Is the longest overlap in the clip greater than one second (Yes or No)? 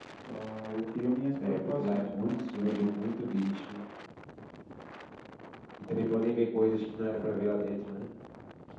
Yes